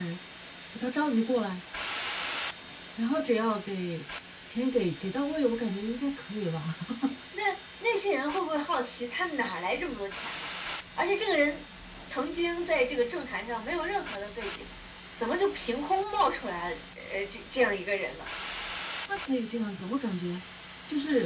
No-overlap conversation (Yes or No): Yes